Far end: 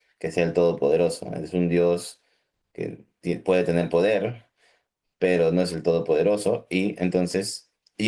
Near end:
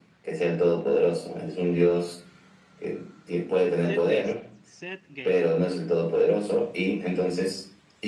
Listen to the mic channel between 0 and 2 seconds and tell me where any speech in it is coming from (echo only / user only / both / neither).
echo only